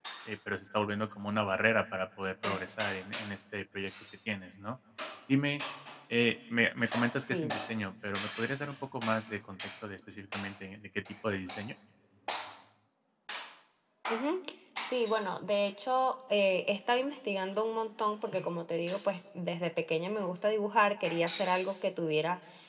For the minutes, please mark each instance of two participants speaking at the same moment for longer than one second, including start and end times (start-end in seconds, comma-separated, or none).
none